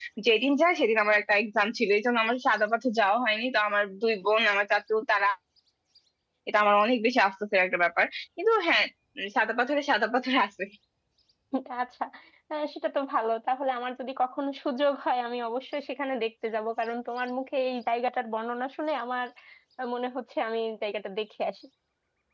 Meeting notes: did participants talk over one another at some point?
No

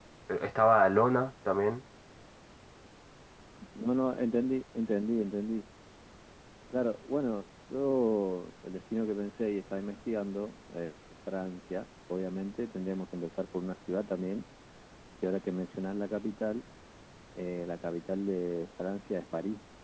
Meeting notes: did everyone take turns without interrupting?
Yes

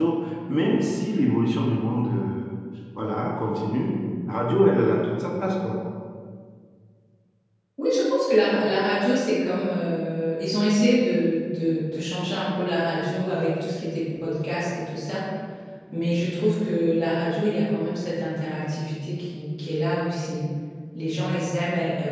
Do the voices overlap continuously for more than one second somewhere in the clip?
No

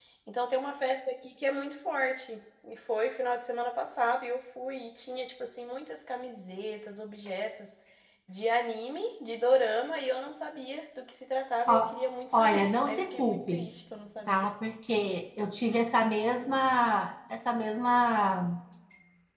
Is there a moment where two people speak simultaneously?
Yes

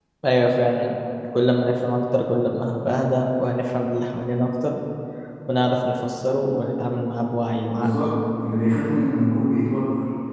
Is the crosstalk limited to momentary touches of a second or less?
Yes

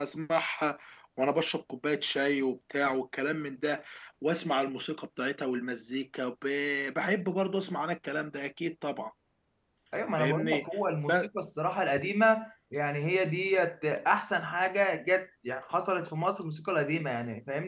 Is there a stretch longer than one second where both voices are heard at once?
No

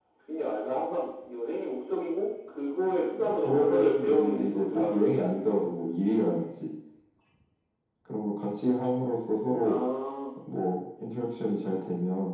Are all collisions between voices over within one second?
No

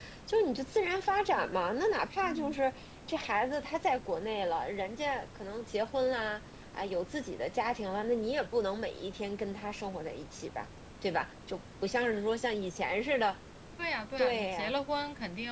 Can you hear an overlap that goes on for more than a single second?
No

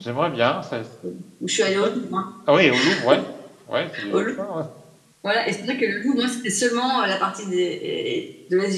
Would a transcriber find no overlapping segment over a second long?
Yes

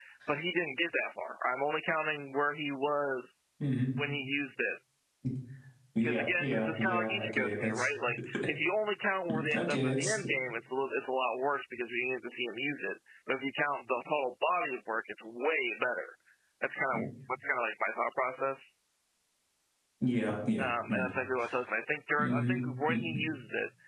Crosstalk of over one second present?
Yes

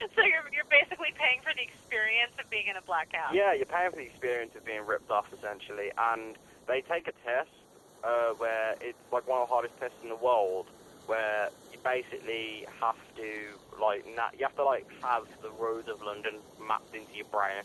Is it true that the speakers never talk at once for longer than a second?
Yes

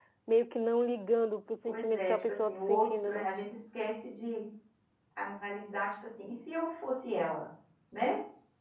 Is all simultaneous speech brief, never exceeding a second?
No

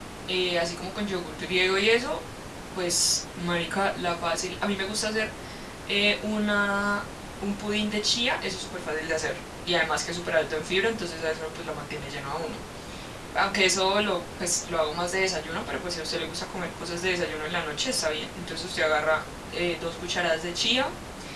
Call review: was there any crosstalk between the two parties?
No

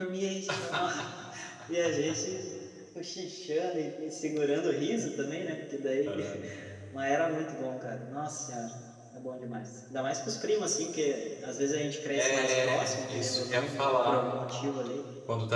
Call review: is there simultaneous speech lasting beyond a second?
Yes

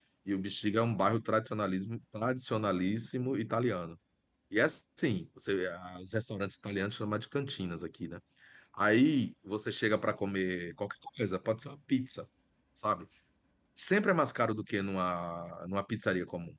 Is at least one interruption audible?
No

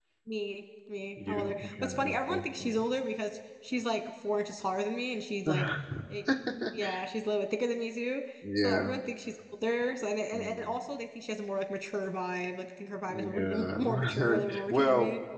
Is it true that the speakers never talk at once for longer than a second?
No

